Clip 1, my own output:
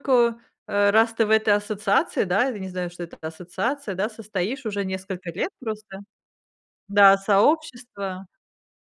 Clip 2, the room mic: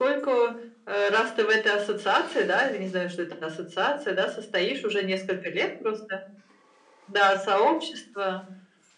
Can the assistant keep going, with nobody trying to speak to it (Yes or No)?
Yes